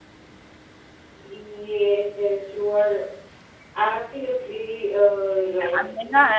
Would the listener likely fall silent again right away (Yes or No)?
No